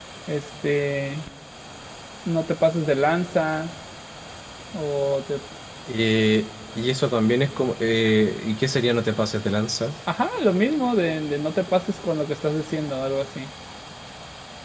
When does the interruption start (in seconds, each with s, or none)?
none